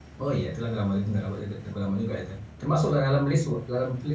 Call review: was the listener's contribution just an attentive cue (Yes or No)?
Yes